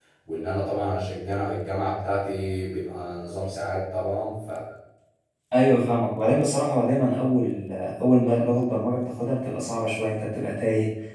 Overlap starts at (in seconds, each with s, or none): none